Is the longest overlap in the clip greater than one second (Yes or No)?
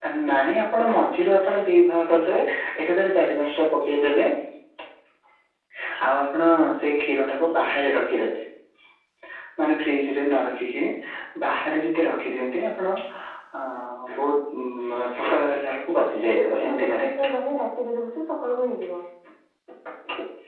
Yes